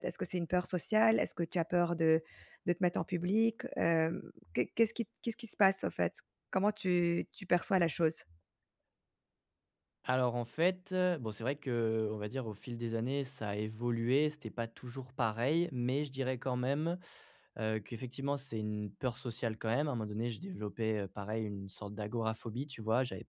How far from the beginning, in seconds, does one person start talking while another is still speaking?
none

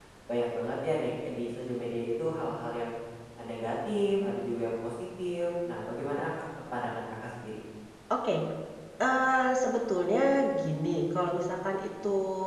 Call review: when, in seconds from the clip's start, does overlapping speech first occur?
none

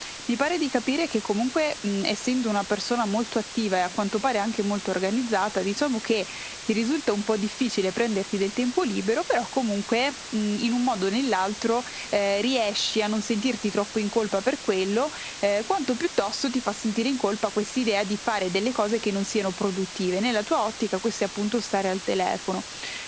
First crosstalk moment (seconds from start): none

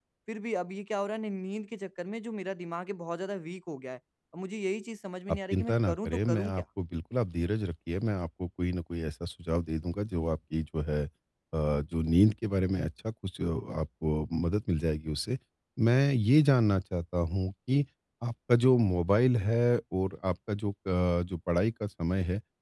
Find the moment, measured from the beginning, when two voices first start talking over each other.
5.3 s

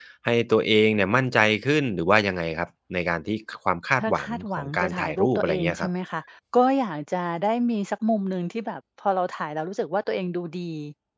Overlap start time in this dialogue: 4.0 s

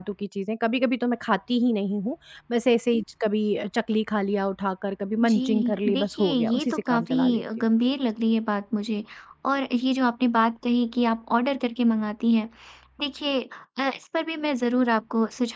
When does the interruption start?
5.2 s

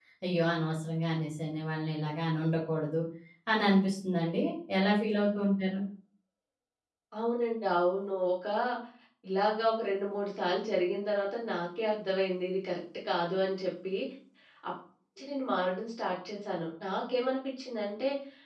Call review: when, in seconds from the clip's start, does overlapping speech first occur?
none

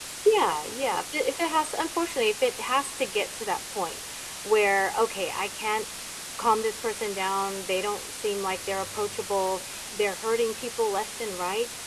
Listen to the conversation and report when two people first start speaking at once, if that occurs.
none

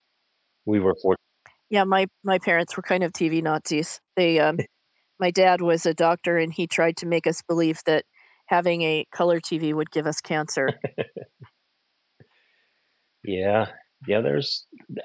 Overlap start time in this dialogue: none

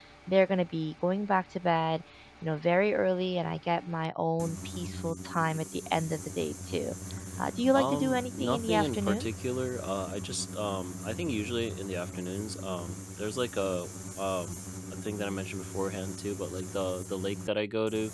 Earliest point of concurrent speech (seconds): 7.7 s

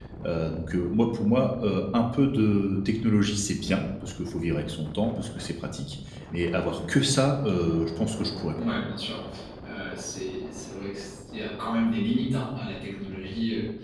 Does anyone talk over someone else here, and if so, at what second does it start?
none

